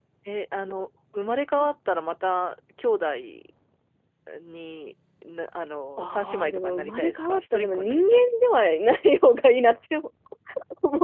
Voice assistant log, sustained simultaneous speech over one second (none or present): present